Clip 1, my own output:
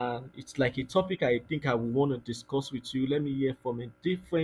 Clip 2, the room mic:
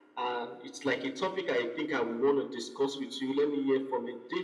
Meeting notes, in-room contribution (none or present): none